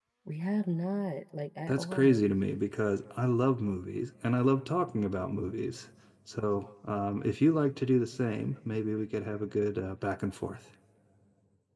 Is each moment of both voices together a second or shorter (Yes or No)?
Yes